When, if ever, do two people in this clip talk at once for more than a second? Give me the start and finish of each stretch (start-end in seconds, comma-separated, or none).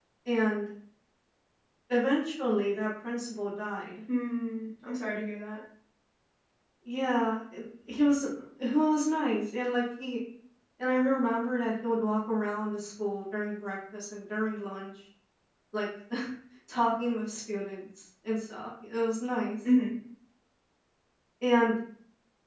none